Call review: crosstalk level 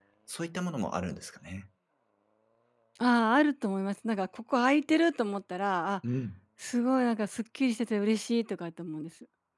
none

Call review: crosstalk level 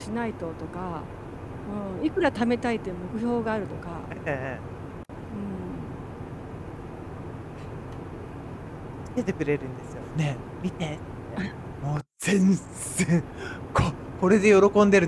none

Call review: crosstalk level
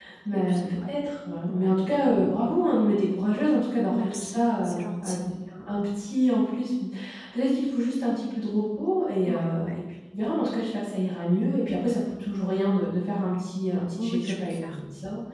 present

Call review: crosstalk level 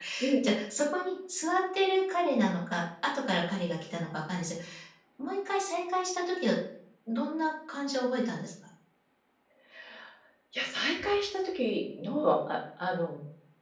none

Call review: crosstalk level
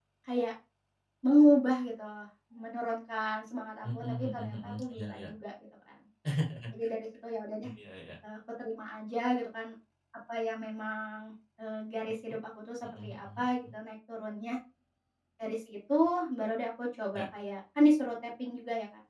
present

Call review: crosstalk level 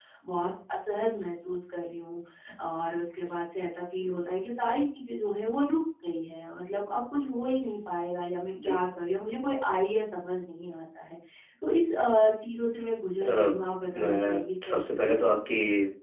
present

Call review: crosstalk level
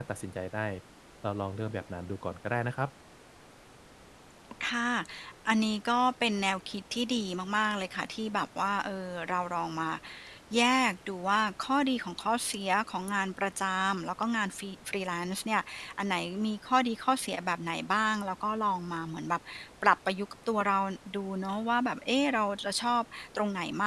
none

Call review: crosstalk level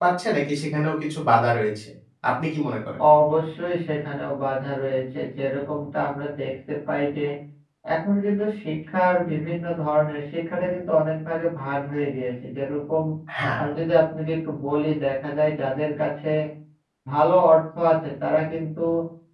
none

